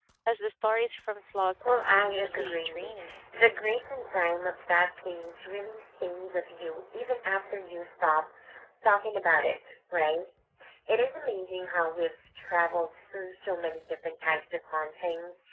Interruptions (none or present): present